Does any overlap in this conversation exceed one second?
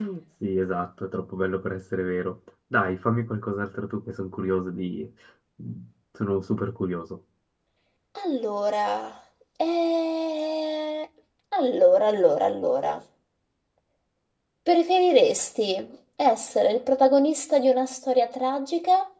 No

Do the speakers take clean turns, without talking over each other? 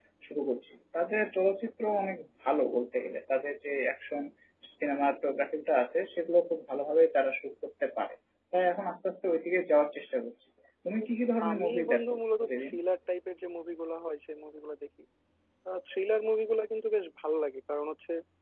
No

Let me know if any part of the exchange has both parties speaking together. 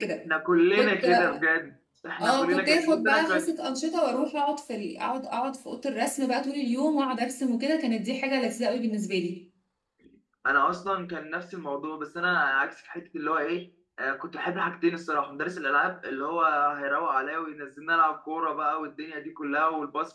Yes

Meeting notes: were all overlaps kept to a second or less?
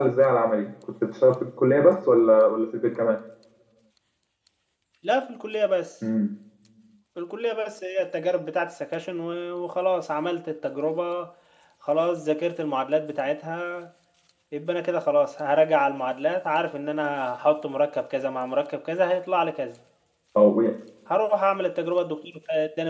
Yes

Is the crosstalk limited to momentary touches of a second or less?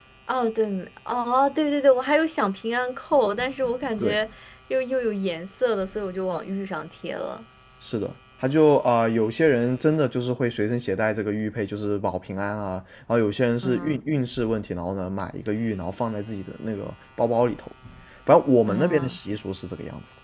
Yes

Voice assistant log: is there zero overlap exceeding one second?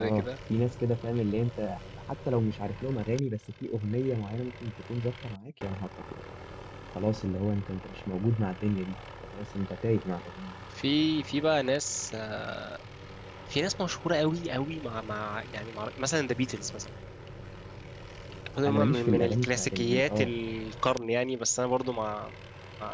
No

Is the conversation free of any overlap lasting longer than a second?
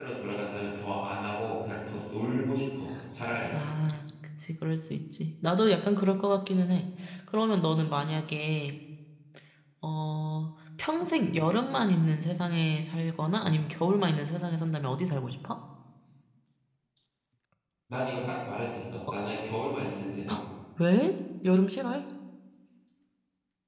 Yes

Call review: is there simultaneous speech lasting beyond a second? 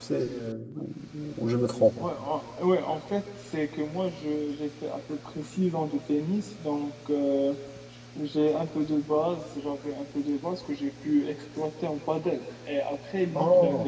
No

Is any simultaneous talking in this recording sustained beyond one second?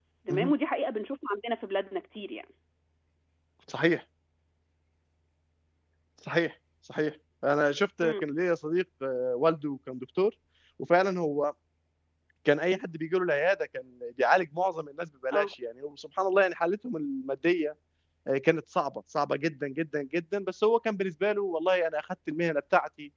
No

